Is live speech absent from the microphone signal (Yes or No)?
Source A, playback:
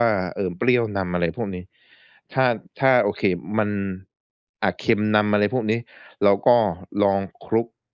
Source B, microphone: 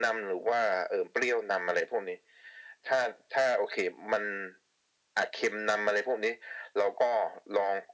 Yes